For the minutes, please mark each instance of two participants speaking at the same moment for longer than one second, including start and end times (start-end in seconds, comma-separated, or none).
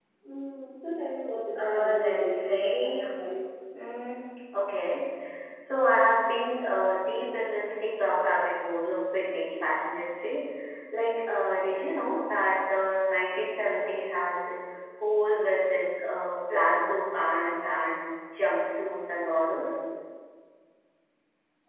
1.6-3.0